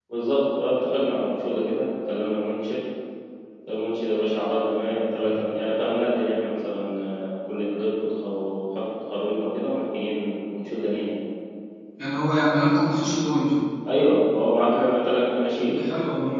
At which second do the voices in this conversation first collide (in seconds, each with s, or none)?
none